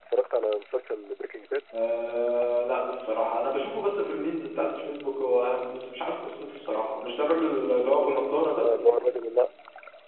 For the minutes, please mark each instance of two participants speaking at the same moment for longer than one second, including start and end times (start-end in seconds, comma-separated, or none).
none